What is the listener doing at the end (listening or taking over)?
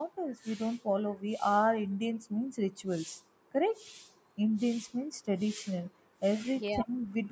listening